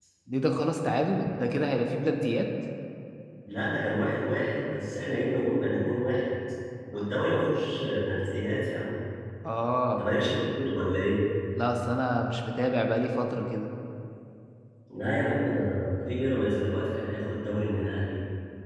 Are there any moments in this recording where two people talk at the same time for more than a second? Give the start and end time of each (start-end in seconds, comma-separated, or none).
none